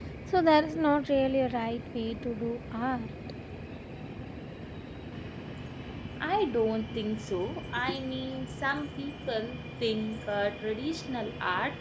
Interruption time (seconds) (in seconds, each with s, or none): none